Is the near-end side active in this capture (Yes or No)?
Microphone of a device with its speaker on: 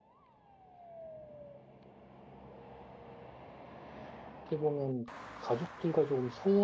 Yes